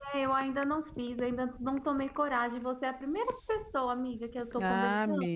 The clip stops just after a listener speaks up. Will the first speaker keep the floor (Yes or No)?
No